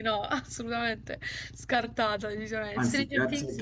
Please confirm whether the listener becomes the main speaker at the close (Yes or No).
Yes